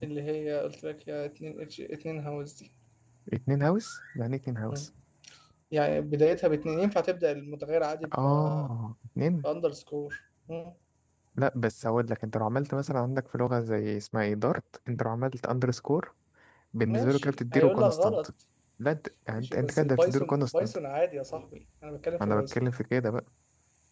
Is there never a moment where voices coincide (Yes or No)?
No